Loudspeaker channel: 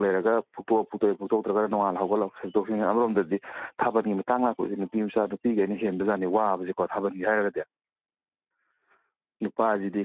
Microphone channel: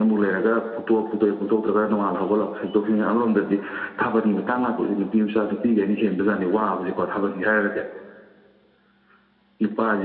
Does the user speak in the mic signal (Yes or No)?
No